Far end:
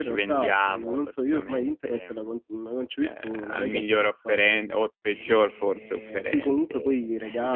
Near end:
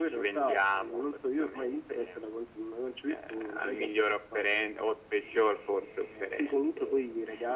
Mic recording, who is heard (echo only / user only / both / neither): echo only